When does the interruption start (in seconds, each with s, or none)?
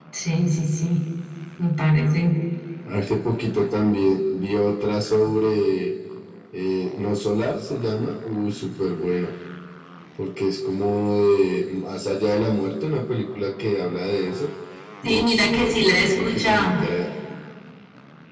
15.1 s